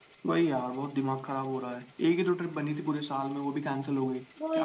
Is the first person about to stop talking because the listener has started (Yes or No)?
Yes